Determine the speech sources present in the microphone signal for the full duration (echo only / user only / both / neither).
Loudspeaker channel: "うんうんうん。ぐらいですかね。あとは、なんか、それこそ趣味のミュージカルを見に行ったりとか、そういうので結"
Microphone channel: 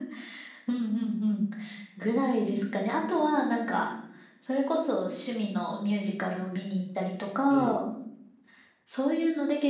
both